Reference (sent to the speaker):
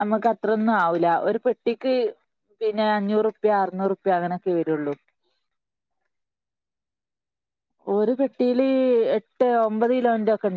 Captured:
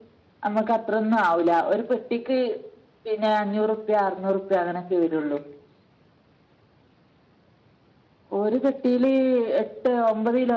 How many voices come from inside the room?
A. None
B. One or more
A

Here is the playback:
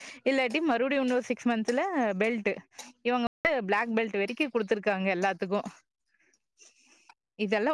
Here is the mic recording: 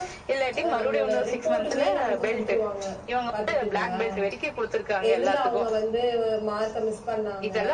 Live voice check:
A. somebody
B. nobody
A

